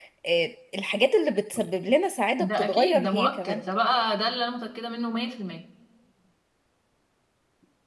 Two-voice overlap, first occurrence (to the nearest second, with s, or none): 2 s